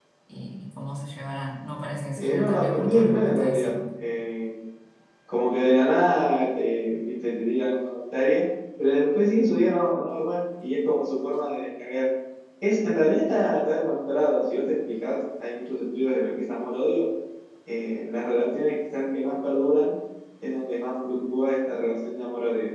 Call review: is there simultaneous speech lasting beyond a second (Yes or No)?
Yes